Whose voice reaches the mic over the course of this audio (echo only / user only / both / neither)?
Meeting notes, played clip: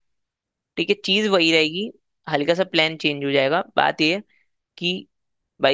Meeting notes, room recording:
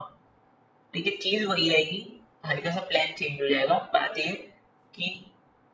echo only